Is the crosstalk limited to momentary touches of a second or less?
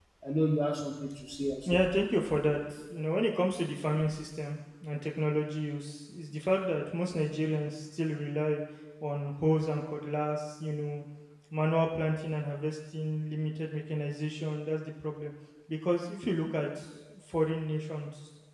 Yes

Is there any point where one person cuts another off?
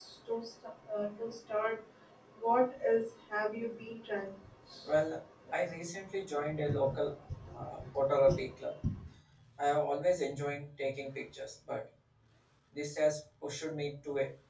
No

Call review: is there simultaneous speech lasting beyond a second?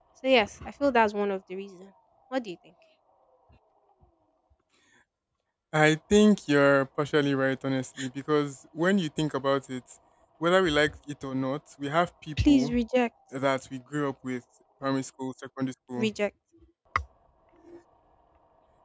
No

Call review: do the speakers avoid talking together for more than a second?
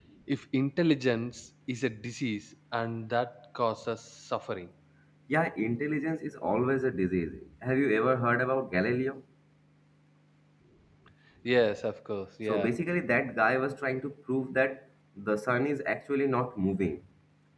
Yes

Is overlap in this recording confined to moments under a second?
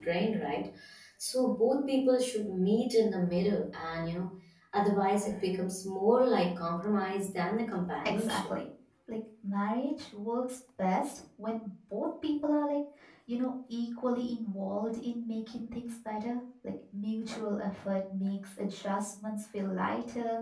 Yes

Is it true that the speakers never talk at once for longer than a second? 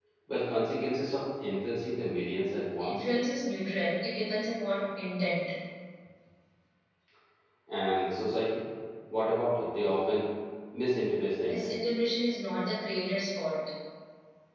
Yes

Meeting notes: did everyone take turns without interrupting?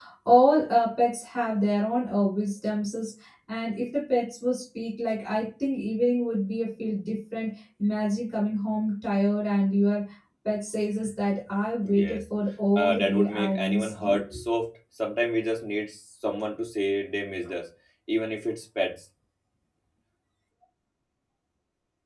No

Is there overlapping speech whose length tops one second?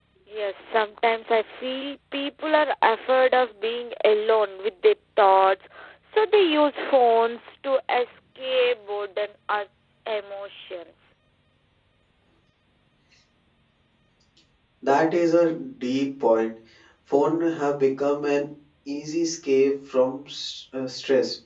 No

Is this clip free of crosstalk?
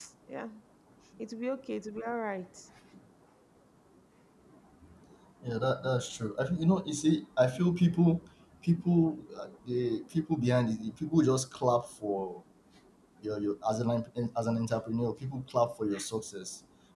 Yes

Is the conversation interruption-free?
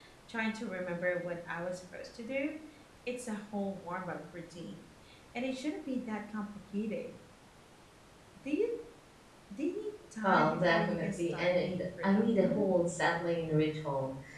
No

